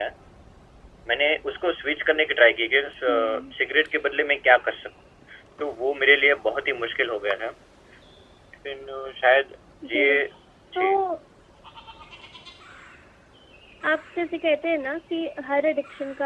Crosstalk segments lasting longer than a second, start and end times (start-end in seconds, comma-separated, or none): none